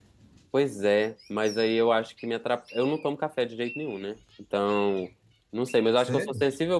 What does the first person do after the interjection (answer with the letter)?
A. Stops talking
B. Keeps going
B